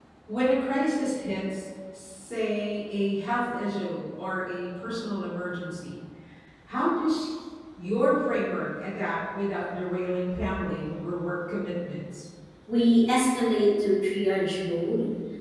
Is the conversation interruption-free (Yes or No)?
Yes